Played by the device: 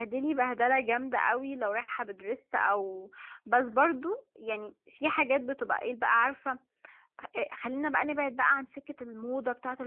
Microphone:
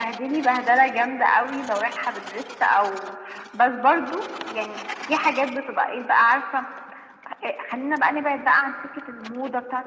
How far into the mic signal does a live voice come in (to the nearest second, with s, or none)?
none